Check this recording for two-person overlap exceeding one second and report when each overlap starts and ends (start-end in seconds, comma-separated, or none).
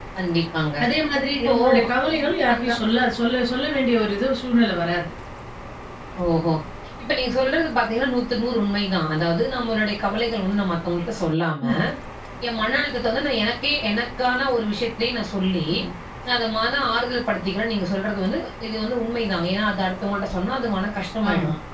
none